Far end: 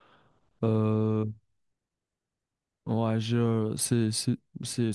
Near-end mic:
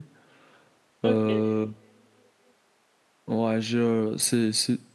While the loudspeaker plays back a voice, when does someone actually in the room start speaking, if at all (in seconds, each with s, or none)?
1.0 s